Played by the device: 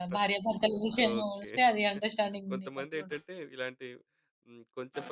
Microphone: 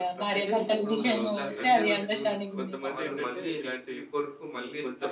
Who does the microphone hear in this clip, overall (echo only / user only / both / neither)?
both